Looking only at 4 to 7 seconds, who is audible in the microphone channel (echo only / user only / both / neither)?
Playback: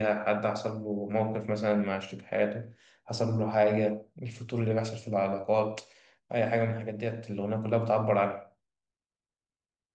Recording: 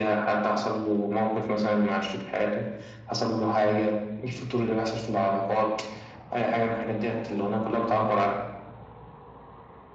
echo only